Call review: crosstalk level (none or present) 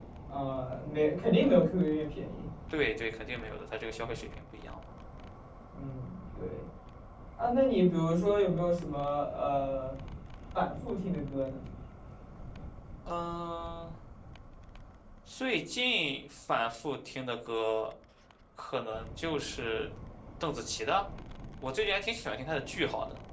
none